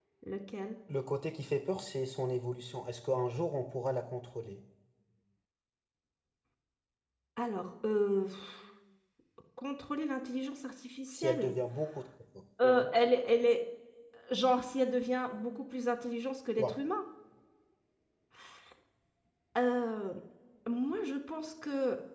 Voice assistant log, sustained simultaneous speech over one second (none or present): none